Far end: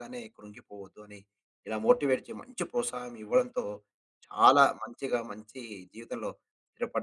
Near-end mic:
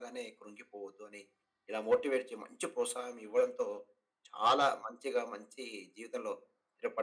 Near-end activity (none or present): none